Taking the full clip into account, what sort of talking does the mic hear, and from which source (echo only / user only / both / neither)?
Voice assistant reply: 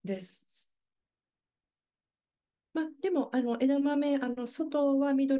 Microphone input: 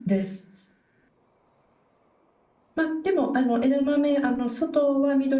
echo only